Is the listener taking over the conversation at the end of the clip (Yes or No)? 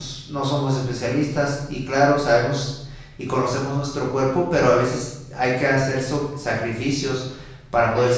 No